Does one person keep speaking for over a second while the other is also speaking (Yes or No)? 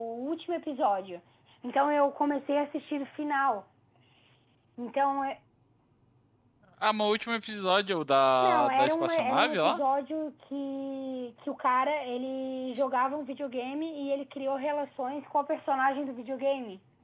Yes